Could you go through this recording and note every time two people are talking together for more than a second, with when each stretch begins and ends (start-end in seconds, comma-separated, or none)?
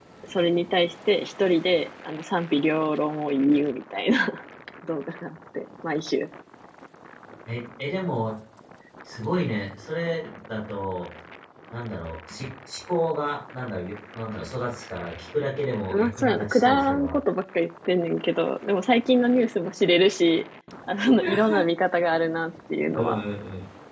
15.9-17.1